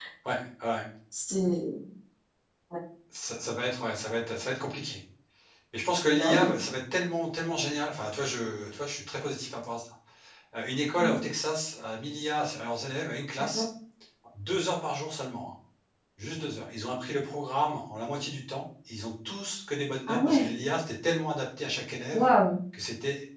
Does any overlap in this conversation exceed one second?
No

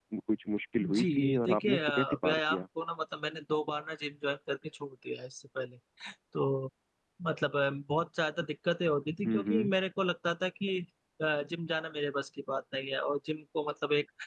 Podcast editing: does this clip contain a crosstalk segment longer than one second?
Yes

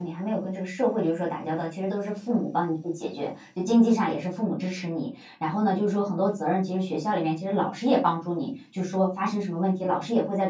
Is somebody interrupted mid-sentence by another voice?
No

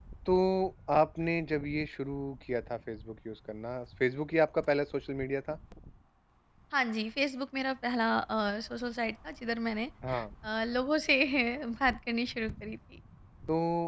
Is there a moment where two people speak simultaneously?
No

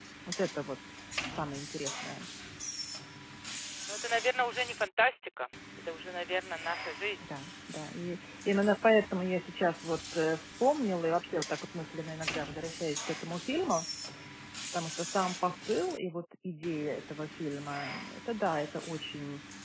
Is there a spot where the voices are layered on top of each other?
No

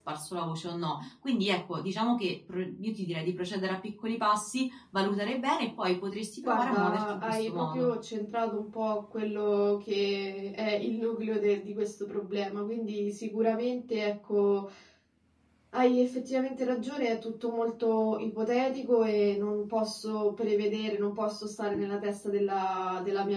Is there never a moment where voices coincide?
No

